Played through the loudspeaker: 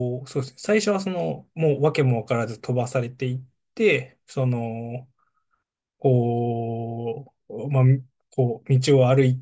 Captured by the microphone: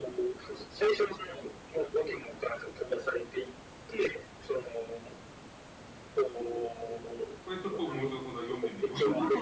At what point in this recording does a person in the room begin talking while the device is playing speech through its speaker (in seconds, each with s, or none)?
7.4 s